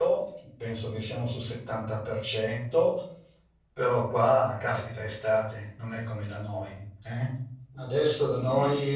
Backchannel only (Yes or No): Yes